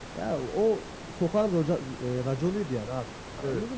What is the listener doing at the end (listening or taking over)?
listening